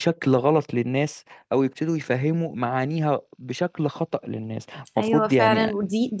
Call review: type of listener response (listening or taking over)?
taking over